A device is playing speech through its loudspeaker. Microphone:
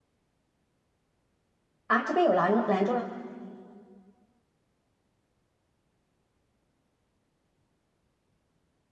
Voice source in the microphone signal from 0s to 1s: neither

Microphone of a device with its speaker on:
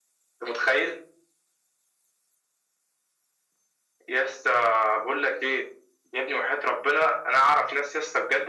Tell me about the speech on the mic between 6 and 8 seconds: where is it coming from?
echo only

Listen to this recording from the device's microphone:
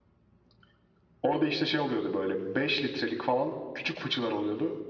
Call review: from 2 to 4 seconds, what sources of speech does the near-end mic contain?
echo only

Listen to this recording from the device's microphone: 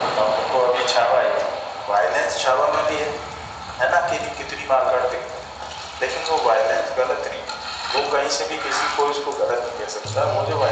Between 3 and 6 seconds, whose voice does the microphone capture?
echo only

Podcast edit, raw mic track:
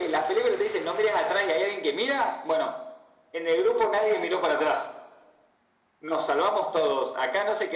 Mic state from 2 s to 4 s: echo only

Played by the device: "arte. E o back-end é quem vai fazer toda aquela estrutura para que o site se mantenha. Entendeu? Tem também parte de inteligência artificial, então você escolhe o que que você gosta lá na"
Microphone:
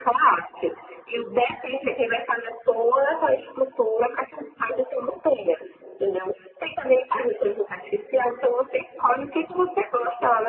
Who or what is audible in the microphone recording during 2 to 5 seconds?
echo only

